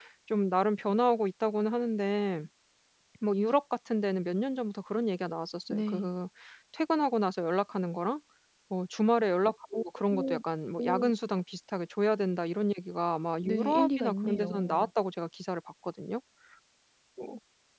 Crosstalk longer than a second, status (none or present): present